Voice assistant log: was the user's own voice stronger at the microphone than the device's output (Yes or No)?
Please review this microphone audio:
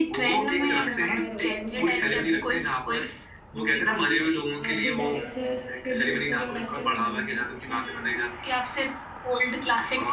No